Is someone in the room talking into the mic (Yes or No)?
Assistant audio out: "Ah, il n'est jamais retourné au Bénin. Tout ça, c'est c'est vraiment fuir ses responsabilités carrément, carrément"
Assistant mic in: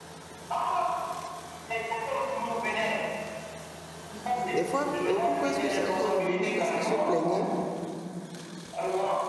Yes